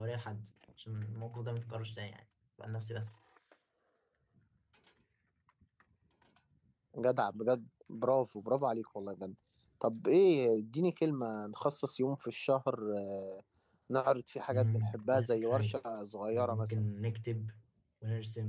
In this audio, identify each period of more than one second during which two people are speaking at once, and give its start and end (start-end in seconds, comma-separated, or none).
14.5-15.8